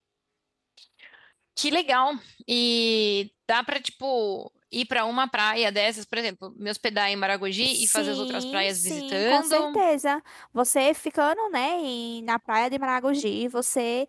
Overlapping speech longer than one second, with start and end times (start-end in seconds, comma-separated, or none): 7.7-9.6